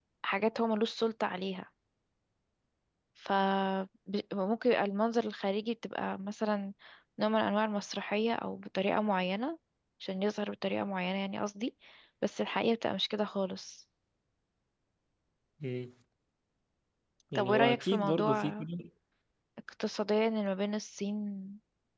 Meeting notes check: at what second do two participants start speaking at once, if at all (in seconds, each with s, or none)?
17.4 s